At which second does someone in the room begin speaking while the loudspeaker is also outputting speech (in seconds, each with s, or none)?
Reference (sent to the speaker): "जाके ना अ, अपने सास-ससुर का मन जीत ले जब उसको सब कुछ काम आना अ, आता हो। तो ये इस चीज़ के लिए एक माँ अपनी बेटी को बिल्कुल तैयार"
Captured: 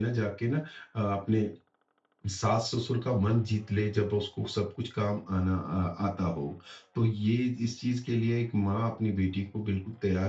none